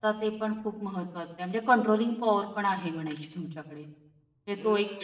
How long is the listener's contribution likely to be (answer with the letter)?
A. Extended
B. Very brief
A